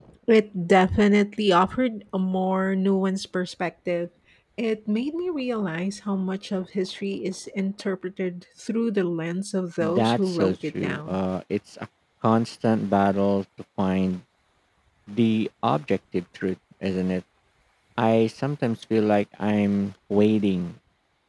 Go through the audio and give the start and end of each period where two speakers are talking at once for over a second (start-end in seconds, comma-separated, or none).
9.8-11.2